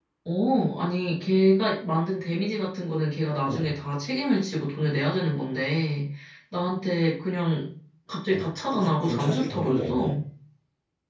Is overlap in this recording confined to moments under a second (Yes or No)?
No